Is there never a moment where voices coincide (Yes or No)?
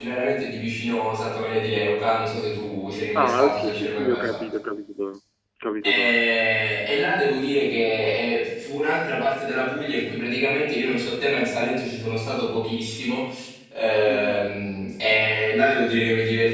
No